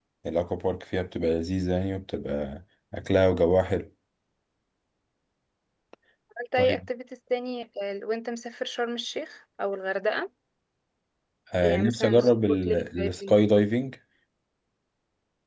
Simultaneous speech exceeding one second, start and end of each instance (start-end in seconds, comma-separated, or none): 11.6-13.4